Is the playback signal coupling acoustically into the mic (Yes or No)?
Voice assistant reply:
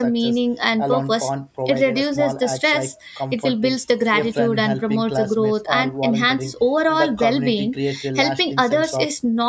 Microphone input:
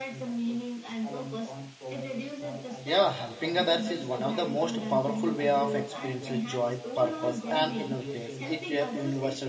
Yes